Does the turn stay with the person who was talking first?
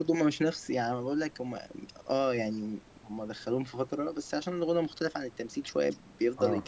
No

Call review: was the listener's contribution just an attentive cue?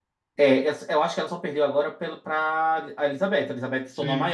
Yes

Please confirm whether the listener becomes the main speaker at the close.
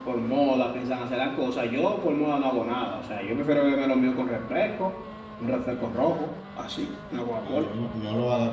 Yes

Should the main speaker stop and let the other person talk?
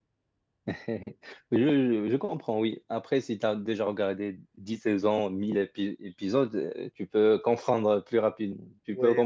Yes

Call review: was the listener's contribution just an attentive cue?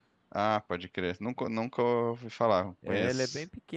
No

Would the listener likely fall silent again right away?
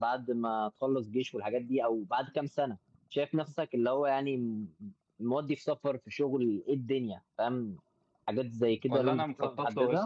No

